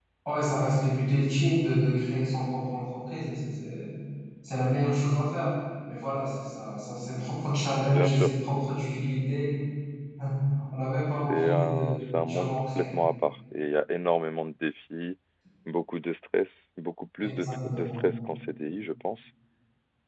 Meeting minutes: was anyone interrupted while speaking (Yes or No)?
Yes